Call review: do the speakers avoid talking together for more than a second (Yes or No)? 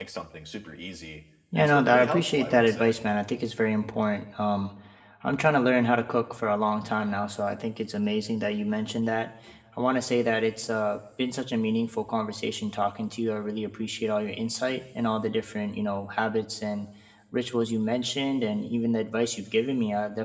No